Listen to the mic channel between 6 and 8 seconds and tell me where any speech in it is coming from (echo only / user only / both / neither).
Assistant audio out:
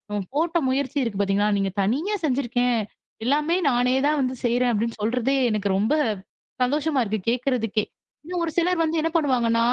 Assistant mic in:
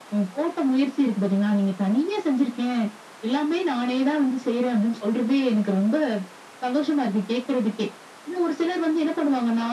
echo only